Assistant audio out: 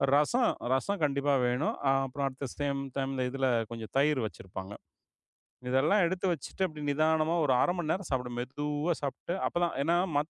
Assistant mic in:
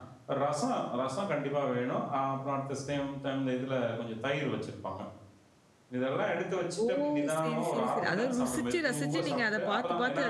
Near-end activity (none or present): present